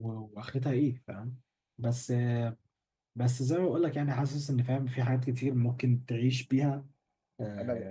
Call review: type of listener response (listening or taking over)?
taking over